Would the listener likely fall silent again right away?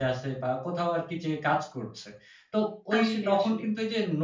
Yes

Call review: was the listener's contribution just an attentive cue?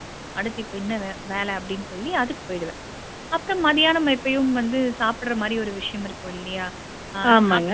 Yes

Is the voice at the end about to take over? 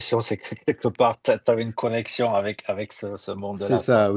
Yes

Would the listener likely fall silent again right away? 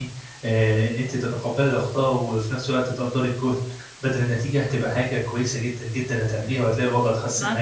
No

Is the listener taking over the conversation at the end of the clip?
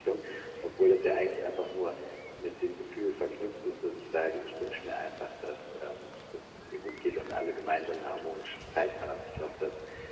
No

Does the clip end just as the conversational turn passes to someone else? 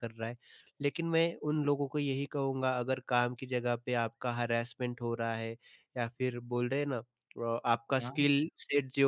No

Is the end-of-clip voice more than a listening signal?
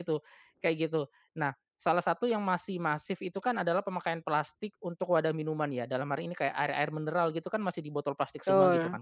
No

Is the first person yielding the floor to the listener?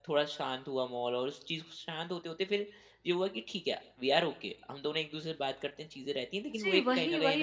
Yes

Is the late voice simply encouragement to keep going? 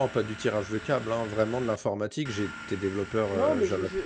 No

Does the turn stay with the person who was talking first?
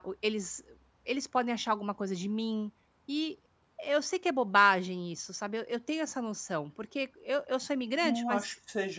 No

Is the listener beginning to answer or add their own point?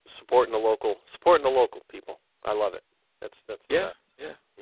Yes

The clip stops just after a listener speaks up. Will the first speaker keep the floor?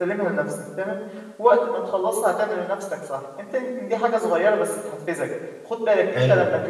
Yes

